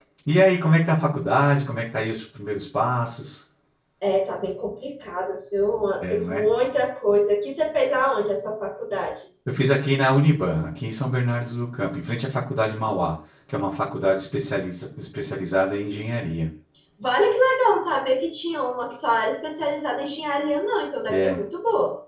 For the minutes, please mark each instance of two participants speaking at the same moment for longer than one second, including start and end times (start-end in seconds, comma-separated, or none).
none